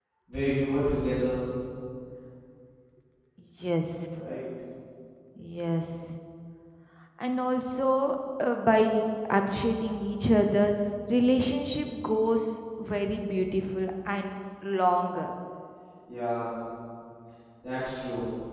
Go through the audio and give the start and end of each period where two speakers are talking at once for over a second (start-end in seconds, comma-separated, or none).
none